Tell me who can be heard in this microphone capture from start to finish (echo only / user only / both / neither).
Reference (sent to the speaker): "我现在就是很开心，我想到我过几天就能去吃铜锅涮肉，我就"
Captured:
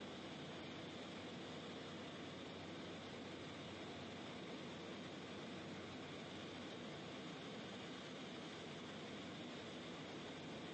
neither